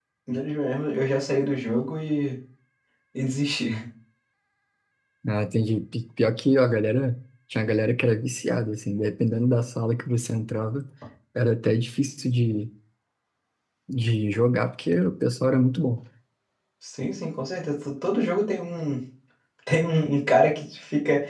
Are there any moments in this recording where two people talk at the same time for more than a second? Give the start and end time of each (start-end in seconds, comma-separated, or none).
none